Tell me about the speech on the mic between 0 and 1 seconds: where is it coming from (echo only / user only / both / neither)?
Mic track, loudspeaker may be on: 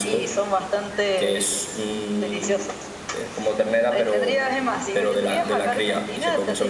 echo only